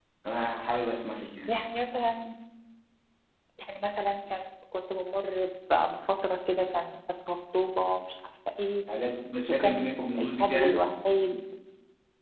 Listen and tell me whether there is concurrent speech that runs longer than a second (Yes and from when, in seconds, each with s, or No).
Yes, from 9.6 s